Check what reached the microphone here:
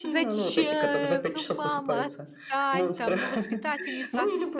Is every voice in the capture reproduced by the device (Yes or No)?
No